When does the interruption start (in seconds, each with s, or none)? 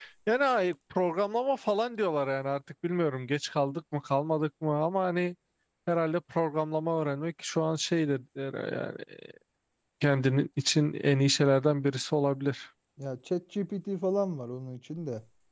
none